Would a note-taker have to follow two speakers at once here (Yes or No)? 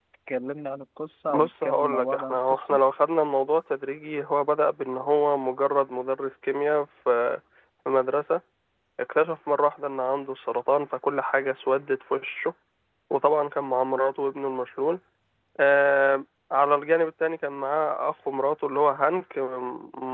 Yes